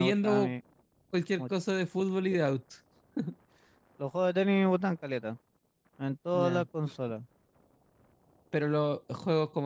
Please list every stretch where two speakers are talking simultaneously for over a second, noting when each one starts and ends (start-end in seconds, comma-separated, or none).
none